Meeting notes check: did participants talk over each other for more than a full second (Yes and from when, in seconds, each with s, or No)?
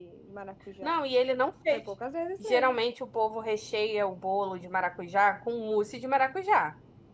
No